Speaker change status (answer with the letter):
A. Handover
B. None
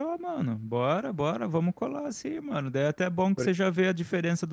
B